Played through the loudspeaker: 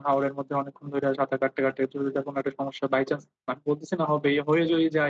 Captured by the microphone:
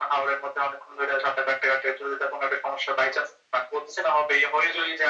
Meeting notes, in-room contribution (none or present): none